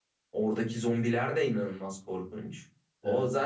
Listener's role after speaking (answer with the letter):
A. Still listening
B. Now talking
A